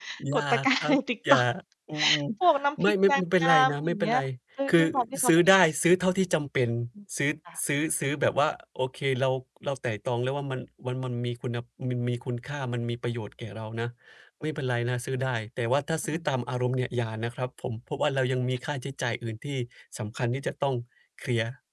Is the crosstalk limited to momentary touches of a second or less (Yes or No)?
No